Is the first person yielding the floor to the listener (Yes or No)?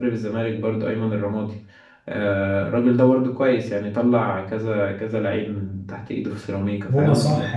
Yes